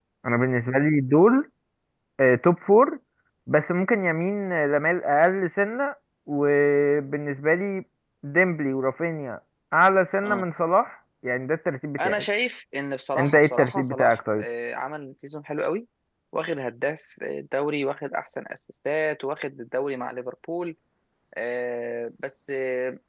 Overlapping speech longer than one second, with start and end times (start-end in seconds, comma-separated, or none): 13.2-14.4